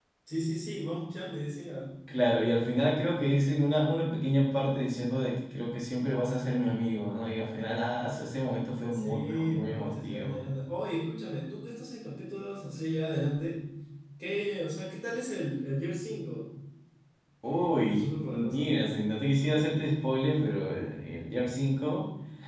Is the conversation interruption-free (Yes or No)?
No